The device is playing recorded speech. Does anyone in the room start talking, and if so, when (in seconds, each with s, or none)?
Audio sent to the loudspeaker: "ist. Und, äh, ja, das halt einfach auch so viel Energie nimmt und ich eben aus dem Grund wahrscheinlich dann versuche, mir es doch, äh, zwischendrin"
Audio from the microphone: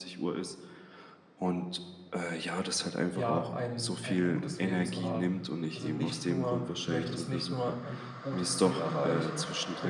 3.1 s